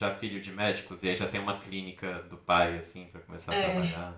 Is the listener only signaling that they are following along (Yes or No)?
No